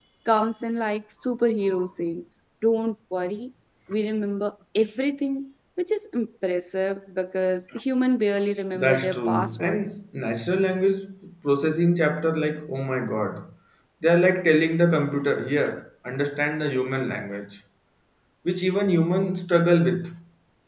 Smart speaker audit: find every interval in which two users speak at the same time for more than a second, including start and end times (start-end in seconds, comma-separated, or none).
8.8-10.0